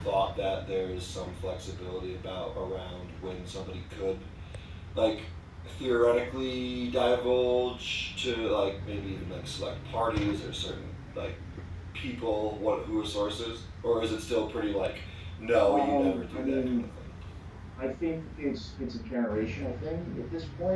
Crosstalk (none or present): present